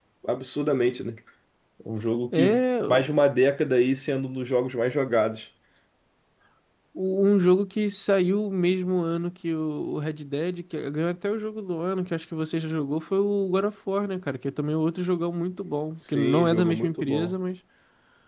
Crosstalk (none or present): present